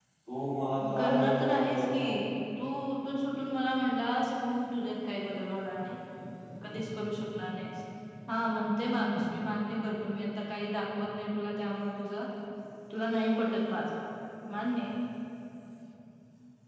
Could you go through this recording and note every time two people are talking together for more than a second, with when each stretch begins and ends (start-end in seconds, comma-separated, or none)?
0.9-2.1